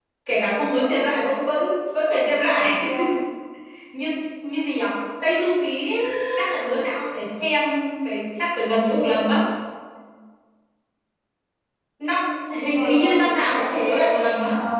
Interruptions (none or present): present